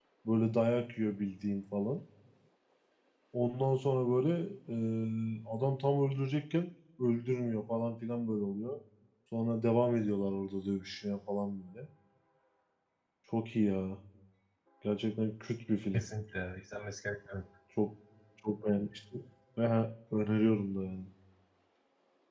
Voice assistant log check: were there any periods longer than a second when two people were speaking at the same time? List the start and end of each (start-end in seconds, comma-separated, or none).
none